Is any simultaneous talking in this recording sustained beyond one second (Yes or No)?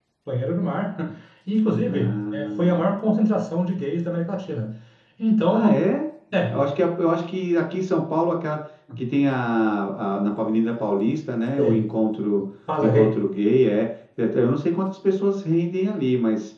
Yes